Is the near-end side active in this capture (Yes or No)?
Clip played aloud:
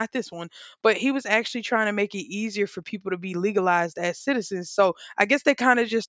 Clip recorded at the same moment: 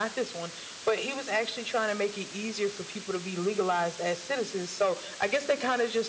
No